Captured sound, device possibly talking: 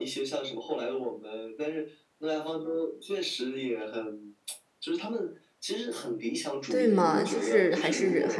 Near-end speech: present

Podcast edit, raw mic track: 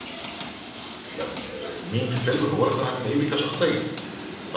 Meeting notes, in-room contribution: present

